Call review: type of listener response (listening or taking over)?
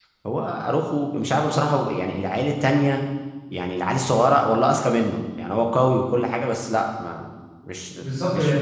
taking over